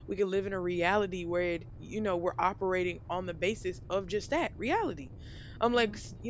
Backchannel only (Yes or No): Yes